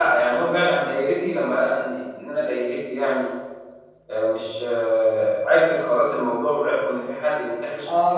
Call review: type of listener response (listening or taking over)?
taking over